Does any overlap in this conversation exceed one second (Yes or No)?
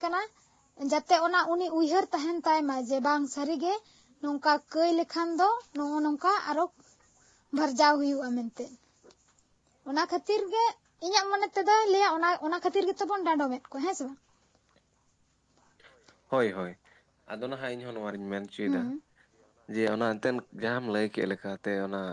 No